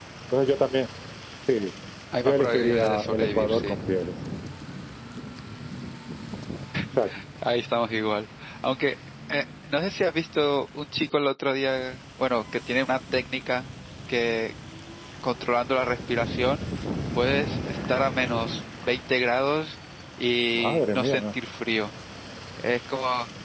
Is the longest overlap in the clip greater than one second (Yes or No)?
Yes